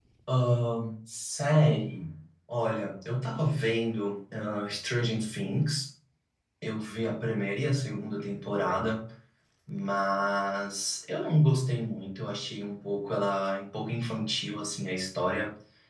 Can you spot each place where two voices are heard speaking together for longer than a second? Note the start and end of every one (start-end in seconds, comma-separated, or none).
none